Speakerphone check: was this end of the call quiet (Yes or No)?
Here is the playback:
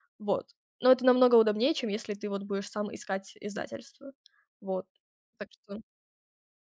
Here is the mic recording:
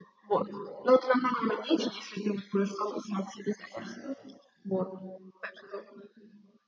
Yes